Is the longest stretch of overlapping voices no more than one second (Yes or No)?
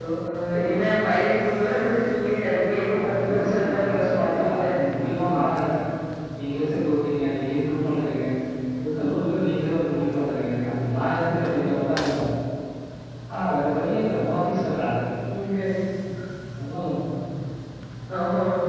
No